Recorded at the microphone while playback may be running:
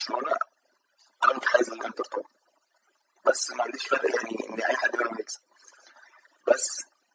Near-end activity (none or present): none